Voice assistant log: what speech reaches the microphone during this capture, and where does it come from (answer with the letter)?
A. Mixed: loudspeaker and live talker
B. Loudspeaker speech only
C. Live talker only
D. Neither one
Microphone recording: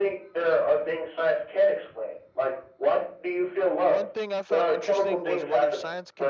A